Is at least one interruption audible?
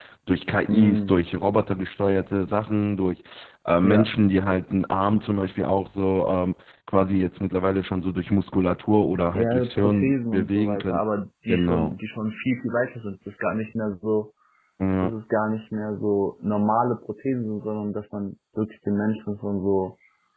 Yes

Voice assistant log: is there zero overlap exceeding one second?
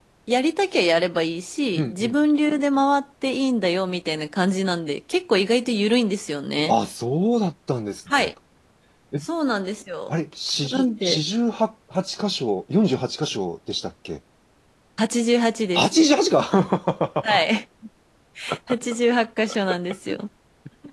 Yes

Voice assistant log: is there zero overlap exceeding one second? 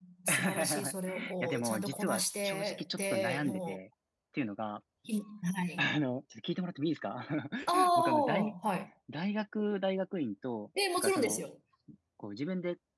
No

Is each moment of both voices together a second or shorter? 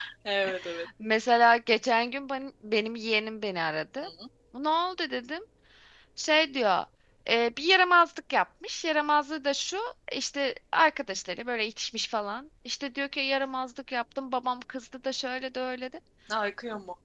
Yes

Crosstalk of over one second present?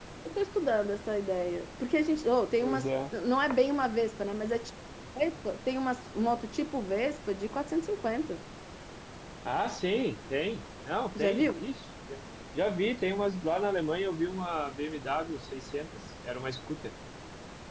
No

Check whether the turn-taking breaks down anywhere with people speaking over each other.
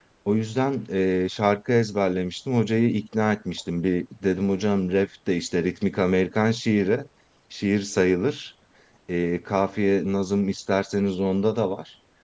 No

